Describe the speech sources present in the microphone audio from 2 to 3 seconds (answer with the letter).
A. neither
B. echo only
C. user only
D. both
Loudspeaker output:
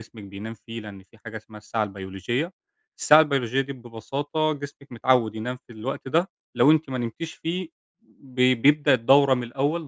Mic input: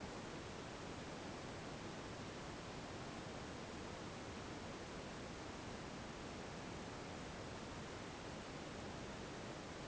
A